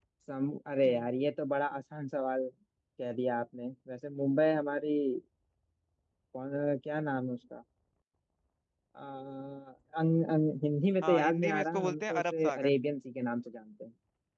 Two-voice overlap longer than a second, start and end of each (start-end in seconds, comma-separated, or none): 11.0-12.7